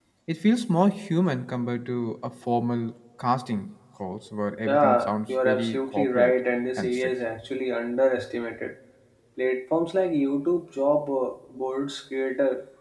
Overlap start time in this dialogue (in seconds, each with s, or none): 4.7 s